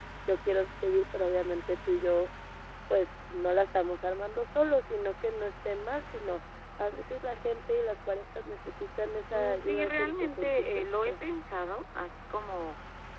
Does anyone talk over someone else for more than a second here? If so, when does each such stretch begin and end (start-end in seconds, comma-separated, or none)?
9.3-11.1